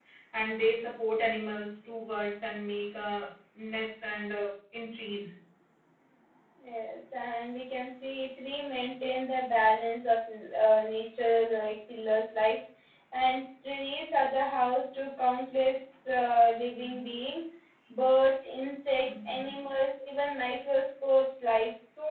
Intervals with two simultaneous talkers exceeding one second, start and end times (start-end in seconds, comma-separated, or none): none